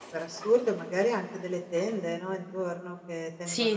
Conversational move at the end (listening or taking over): listening